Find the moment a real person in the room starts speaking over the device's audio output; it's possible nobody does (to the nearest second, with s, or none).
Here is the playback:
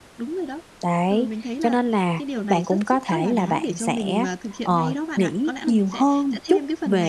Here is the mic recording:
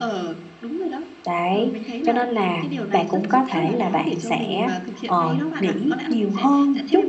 none